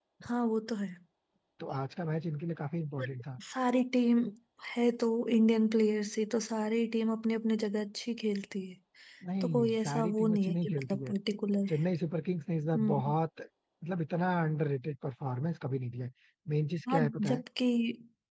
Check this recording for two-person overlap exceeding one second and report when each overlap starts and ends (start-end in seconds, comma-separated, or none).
9.4-11.1